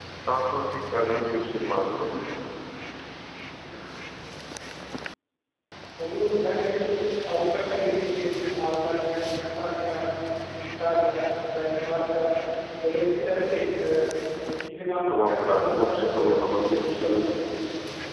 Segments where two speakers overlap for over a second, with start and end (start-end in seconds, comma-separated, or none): 15.1-17.3